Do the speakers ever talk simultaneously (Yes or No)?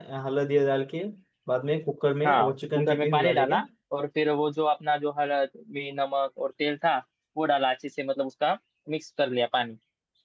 Yes